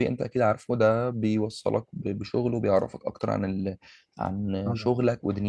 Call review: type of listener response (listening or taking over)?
listening